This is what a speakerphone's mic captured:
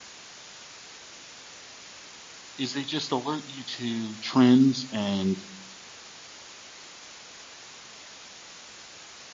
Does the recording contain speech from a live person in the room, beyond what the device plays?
Yes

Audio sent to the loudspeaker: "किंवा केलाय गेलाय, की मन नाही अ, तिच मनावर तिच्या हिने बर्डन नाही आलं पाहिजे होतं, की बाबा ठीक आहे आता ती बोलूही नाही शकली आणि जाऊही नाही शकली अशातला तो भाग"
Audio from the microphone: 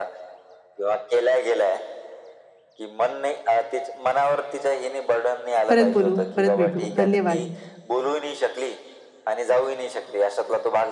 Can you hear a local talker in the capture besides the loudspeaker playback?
Yes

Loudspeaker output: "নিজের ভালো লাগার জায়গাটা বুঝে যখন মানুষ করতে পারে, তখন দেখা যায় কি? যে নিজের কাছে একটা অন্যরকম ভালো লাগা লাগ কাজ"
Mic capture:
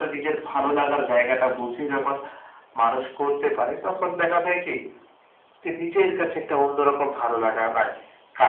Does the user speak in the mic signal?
No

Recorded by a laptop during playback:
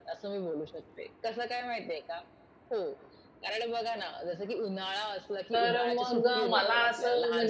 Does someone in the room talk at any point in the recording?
Yes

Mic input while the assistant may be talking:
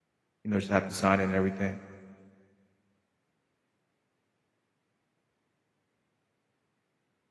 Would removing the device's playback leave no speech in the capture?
No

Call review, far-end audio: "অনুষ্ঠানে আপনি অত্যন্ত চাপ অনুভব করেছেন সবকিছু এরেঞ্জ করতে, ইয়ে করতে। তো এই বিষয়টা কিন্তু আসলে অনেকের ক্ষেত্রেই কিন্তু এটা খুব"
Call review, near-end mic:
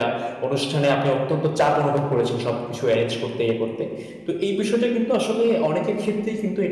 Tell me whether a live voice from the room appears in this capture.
No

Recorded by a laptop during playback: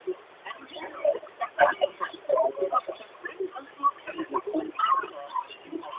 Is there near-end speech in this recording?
No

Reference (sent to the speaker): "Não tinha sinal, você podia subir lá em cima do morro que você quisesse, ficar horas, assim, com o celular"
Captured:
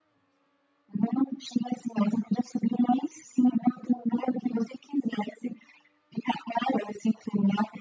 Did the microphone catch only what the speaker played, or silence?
Yes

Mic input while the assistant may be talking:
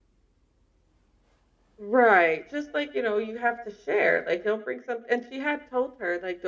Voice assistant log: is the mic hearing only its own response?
Yes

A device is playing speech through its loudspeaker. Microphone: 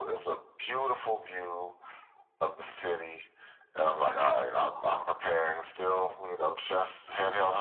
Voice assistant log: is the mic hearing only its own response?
No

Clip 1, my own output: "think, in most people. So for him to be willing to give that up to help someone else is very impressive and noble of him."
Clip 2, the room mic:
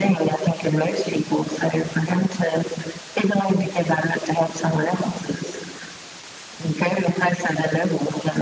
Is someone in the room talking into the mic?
No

